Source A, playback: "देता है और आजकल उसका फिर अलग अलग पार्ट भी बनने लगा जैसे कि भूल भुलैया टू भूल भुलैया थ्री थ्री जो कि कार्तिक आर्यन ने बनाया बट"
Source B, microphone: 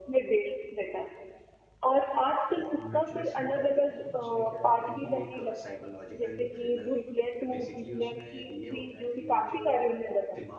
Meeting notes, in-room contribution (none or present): present